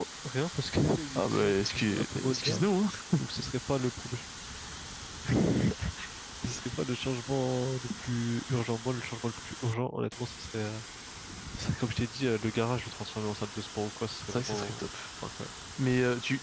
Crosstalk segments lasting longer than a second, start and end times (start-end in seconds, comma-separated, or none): 1.1-2.7